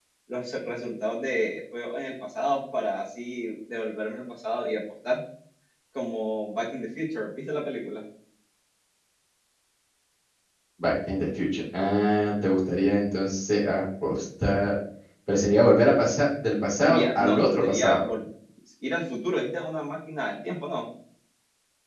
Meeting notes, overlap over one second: present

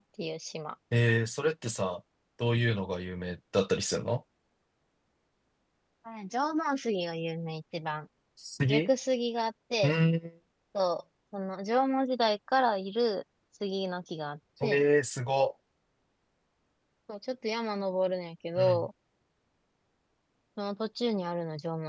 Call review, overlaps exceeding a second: none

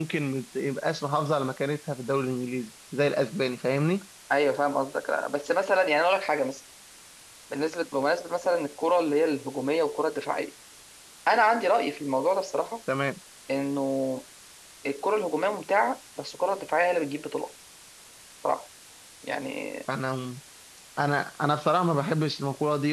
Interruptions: none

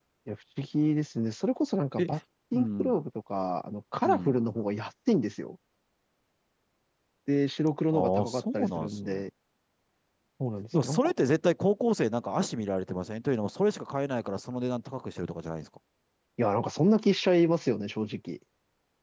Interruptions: present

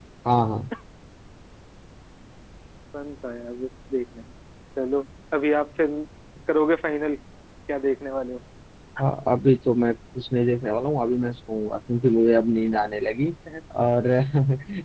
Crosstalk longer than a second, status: none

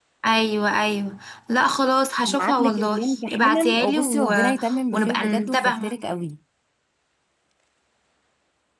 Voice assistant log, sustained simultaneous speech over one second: present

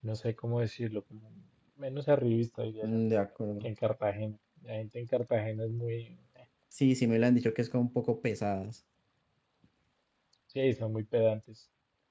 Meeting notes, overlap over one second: none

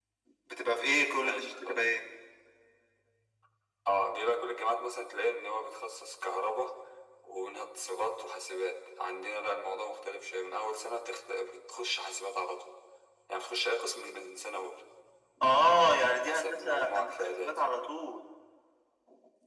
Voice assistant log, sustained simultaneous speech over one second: present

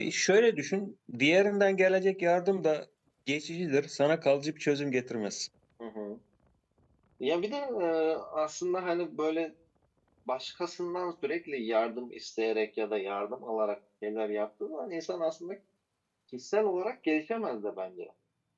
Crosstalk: none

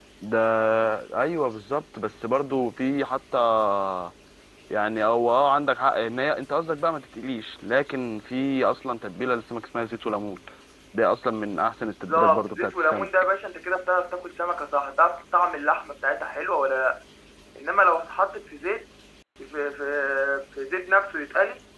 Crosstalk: present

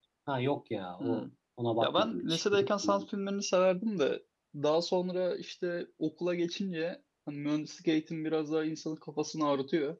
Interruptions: present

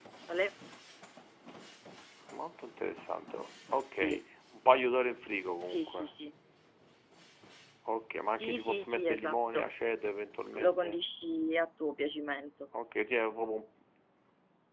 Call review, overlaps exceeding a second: present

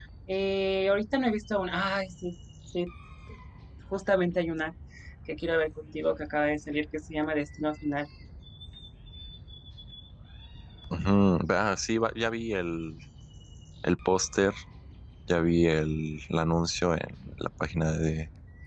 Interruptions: none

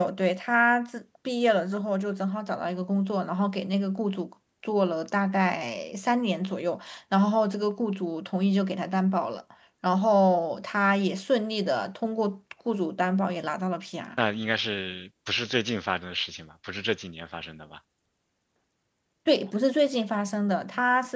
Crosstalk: none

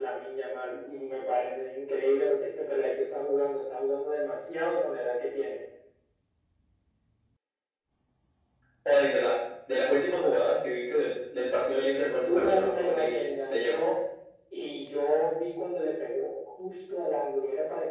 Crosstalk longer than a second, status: present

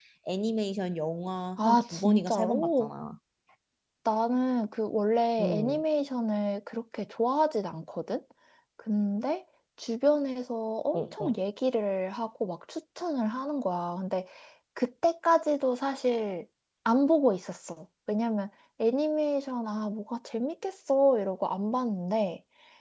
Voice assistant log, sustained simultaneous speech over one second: present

